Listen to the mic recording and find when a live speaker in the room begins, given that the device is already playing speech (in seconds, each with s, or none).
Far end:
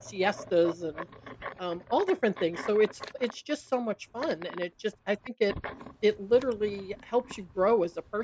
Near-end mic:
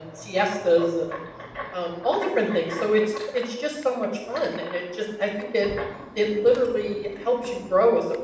none